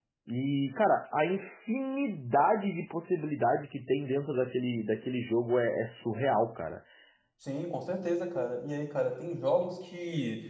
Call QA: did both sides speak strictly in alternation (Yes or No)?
Yes